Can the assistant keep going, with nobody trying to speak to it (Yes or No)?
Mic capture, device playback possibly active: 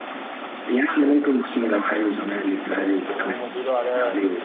No